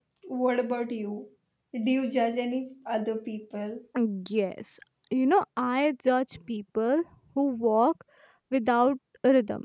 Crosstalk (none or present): none